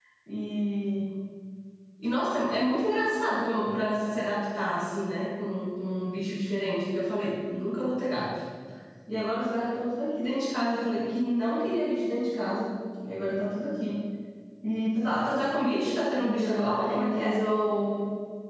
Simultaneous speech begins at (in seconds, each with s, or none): 16.2 s